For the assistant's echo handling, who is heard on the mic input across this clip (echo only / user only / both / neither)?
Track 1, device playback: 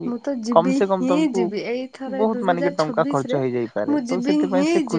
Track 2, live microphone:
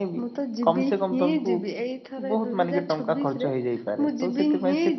echo only